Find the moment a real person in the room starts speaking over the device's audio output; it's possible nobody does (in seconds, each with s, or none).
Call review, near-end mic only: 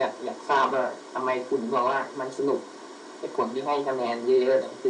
none